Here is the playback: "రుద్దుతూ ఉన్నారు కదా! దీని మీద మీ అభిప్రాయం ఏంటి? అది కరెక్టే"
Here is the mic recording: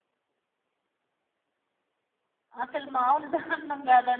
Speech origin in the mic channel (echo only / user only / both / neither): user only